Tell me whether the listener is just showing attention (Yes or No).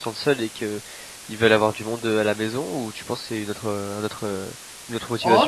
No